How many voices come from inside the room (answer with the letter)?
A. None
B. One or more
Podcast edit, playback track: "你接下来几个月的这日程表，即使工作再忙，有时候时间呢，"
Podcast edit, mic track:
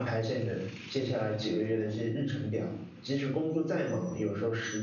A